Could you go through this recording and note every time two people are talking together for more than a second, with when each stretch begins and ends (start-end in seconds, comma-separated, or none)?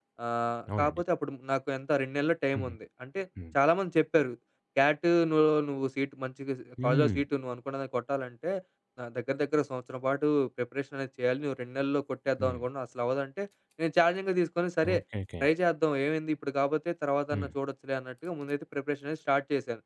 none